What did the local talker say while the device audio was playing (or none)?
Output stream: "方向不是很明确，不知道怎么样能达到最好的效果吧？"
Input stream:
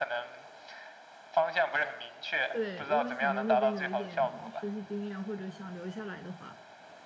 对，如果想在那边有一点实习经验，或者想留下来的话，